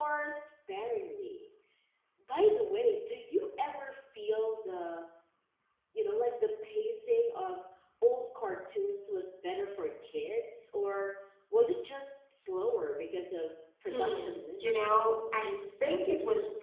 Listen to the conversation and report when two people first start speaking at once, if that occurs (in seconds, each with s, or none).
13.9 s